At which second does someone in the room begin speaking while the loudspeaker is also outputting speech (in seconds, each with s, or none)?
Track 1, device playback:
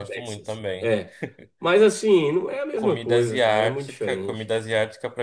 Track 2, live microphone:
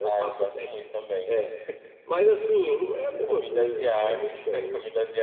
none